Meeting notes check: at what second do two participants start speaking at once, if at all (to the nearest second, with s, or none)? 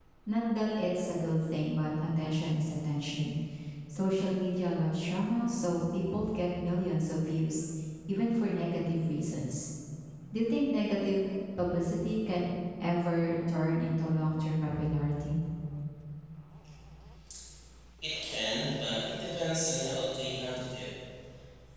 none